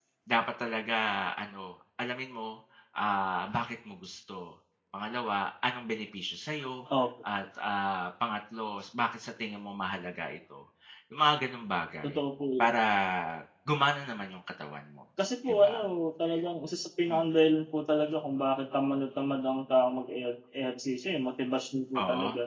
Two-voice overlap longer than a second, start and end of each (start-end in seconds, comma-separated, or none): none